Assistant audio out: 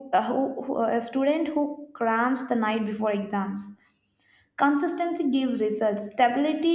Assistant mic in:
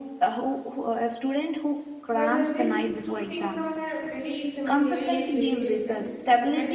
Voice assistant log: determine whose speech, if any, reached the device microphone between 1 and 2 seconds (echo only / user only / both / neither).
echo only